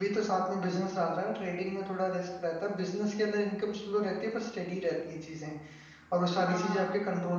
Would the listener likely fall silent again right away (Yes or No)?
Yes